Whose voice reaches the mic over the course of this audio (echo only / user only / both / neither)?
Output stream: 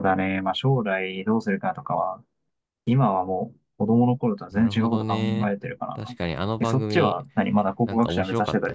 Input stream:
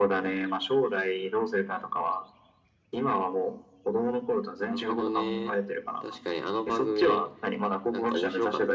echo only